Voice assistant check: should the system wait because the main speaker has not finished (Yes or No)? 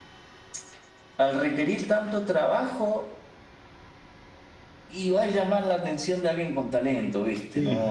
No